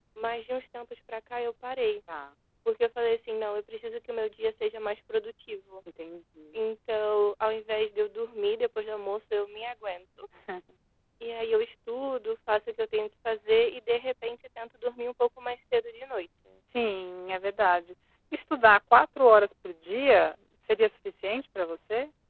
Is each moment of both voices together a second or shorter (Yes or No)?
Yes